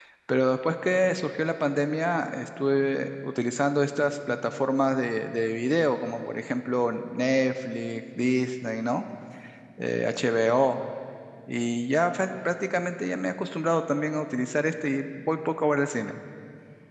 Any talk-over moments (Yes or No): No